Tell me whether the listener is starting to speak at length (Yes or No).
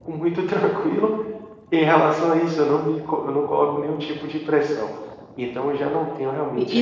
Yes